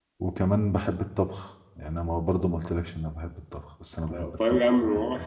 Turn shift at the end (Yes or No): Yes